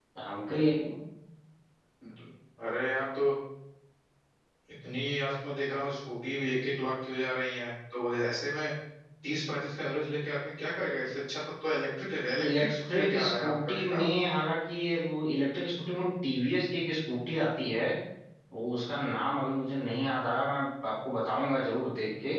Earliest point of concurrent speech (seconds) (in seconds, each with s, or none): 12.4 s